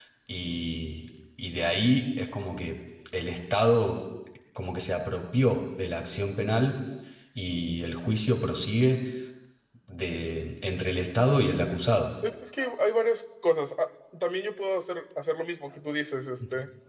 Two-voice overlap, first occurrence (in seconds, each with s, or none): none